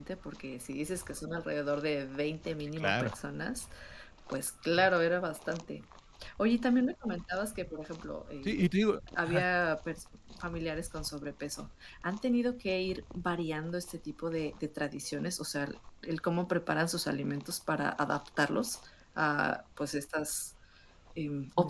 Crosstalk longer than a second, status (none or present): none